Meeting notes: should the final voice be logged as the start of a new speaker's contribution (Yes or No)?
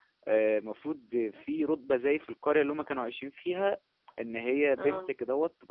No